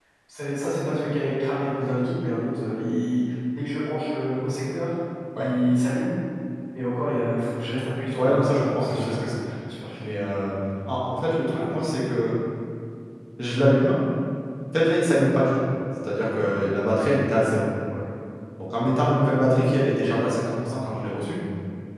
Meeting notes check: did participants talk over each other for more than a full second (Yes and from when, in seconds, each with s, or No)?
Yes, from 8.2 s